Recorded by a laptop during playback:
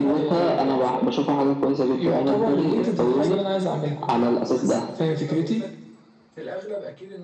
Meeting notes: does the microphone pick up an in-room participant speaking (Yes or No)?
Yes